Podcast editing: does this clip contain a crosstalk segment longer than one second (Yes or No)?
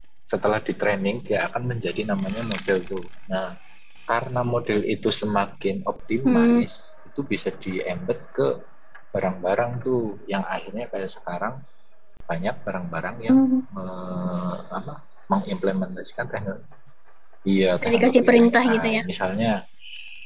Yes